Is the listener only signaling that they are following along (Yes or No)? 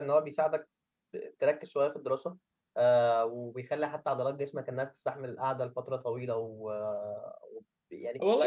No